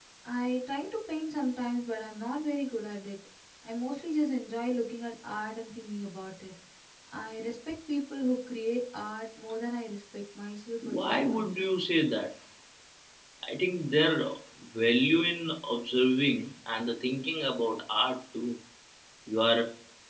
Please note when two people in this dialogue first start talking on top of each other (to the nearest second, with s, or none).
11 s